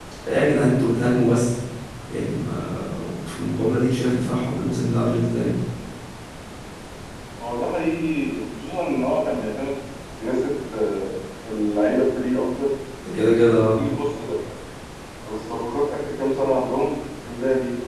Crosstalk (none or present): none